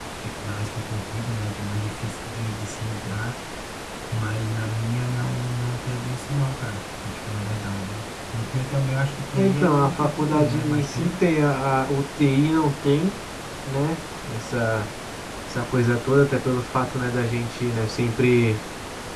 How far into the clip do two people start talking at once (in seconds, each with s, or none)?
9.3 s